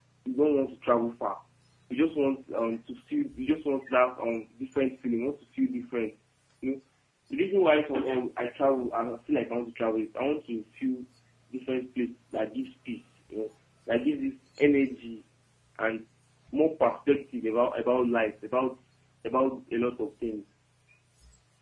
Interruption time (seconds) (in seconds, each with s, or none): none